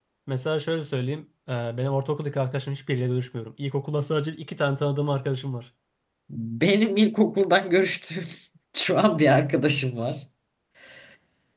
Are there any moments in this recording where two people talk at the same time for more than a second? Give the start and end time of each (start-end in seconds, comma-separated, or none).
none